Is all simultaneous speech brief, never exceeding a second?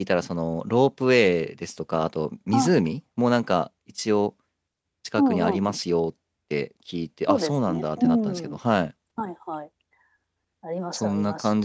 No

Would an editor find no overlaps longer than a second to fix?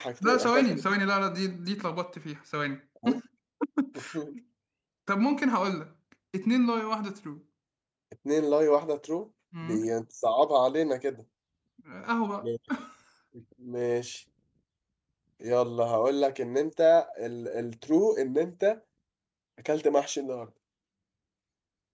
Yes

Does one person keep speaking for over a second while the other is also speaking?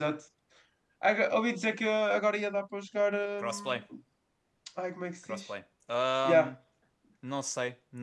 No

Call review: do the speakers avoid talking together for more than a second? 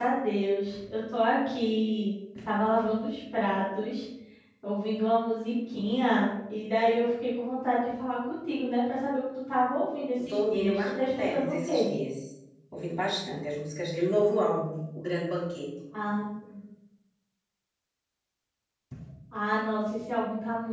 No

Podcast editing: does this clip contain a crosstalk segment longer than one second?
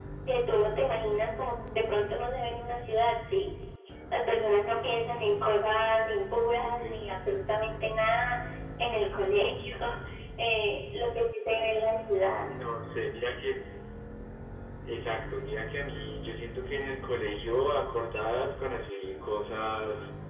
No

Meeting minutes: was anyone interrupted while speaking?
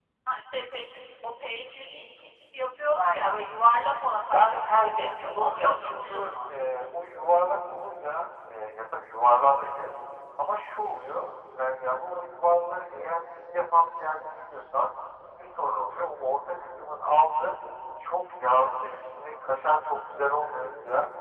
Yes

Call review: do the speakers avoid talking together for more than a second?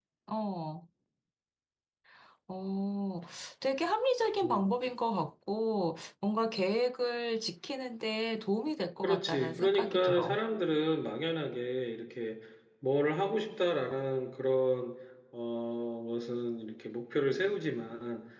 No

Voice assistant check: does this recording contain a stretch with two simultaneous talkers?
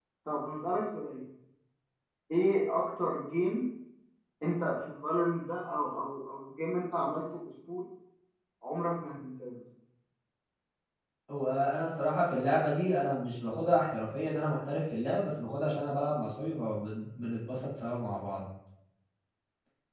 No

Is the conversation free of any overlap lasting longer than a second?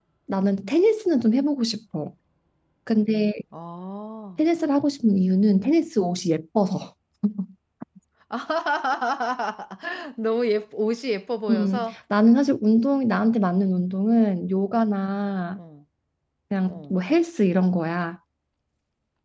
Yes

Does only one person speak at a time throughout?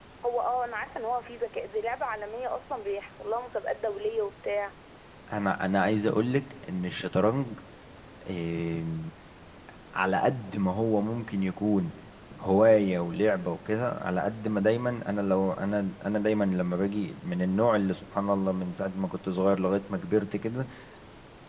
Yes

